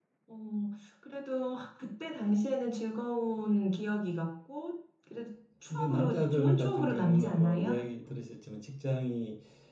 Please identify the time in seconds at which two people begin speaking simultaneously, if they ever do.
5.7 s

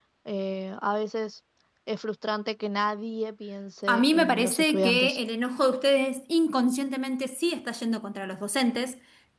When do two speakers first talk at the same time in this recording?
3.9 s

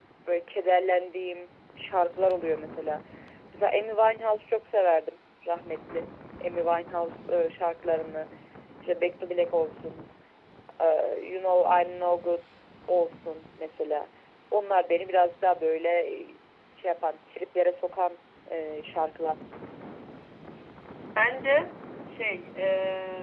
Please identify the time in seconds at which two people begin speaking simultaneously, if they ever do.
none

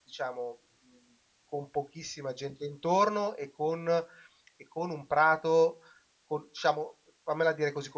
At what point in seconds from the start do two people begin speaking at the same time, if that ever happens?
none

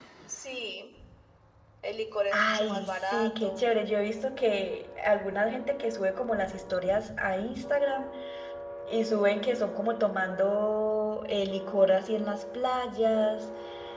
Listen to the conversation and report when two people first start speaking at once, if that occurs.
2.3 s

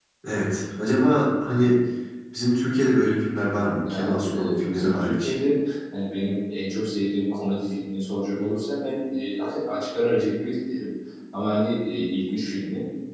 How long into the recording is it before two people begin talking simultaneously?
3.8 s

